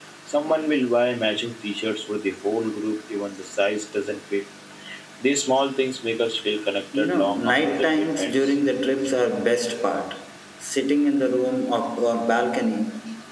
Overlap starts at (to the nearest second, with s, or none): 7 s